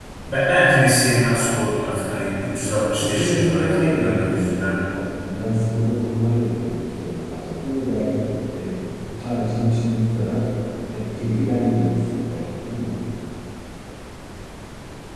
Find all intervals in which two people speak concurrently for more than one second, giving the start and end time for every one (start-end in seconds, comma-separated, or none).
3.0-4.8